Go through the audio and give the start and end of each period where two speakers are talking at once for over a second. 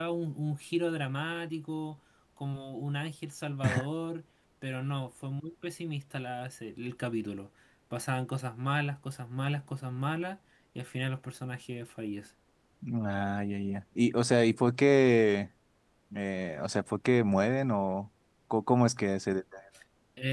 none

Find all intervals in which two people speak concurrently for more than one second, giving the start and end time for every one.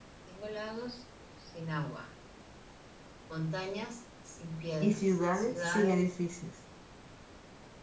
4.8-6.1

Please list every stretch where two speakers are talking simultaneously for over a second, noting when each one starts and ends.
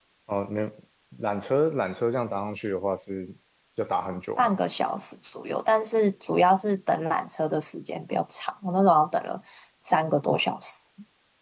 none

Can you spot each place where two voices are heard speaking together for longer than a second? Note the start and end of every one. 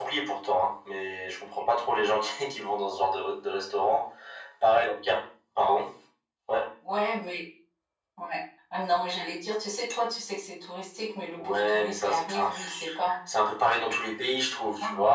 11.4-12.7

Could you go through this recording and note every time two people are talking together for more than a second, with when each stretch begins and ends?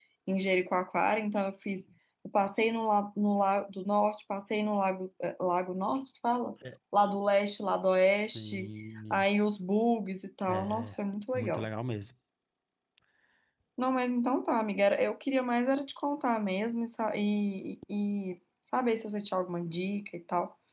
none

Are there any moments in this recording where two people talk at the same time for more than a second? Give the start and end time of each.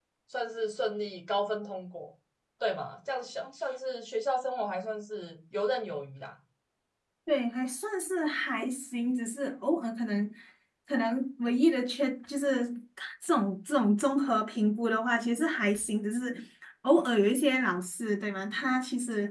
none

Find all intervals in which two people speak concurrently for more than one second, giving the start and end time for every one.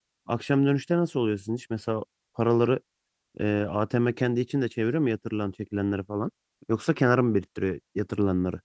none

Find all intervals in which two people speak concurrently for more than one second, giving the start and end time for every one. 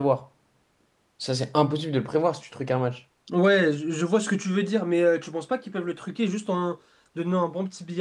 none

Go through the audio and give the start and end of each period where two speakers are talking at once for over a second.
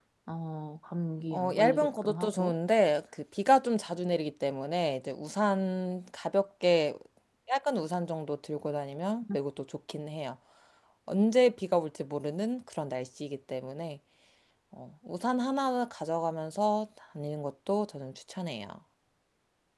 1.3-2.5

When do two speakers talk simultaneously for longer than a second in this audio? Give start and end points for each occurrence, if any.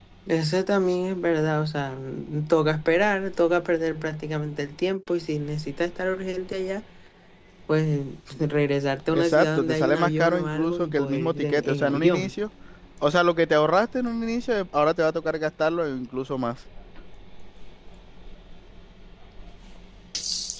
9.1-12.3

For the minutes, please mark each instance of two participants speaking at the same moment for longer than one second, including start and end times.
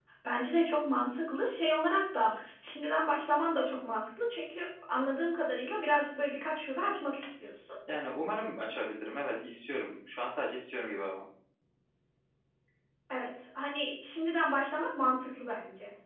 none

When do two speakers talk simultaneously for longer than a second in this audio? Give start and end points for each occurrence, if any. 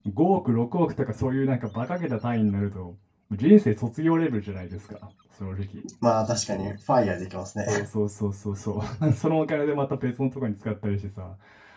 none

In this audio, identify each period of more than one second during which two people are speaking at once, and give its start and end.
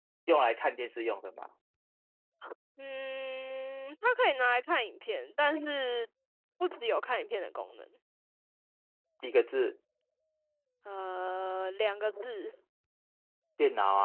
none

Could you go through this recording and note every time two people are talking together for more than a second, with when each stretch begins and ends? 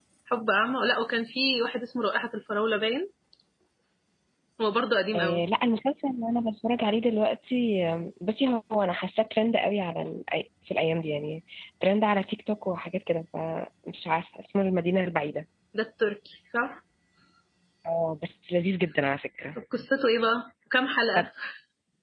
none

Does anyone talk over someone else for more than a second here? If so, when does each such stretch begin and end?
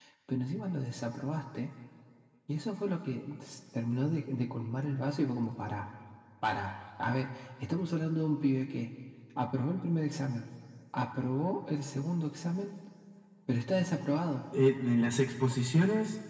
none

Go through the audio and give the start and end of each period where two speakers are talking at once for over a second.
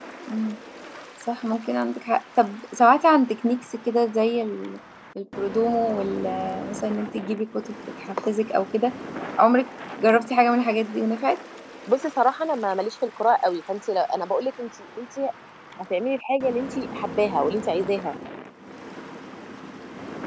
none

